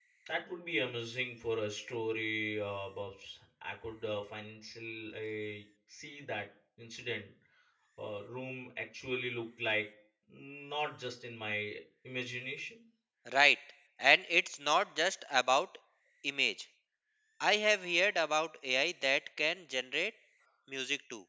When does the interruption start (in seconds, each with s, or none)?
none